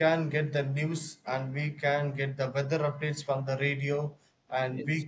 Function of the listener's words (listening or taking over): listening